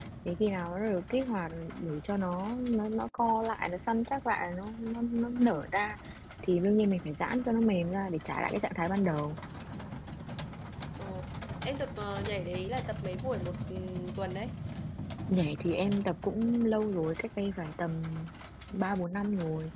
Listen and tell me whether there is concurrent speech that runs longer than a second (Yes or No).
No